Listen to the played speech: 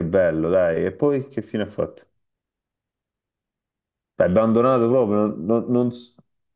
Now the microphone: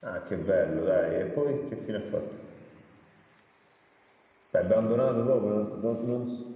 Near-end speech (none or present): none